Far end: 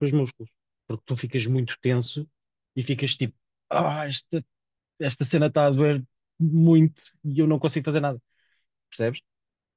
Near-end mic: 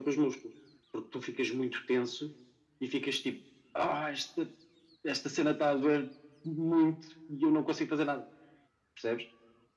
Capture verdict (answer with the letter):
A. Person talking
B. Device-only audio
B